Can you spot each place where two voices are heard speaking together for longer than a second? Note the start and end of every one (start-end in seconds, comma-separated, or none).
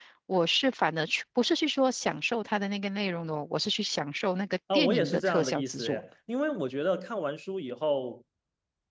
4.7-6.0